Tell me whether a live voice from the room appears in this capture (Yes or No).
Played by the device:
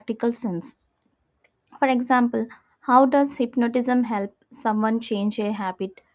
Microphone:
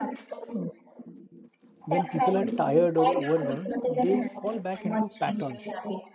Yes